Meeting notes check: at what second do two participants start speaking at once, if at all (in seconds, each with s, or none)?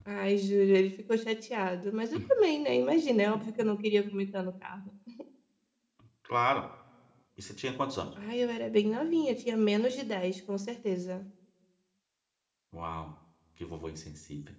none